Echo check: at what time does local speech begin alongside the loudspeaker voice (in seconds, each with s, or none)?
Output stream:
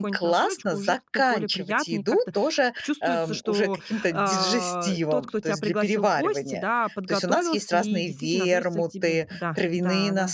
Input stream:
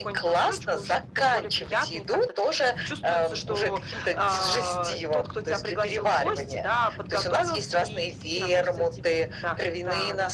none